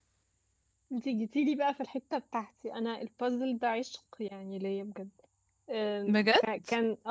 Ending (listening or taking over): listening